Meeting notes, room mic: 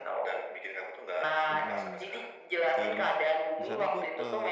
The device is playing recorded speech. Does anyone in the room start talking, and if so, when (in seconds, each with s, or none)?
1.5 s